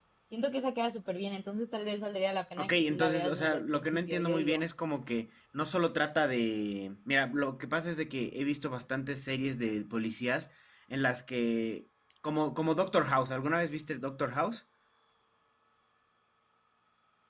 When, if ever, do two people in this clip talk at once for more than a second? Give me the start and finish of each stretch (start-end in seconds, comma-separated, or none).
2.6-4.6